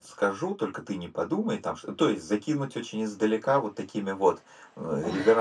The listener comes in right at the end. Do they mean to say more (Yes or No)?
No